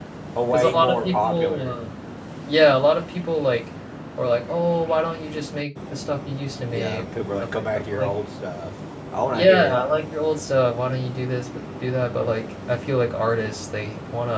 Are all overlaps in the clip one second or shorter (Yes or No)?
No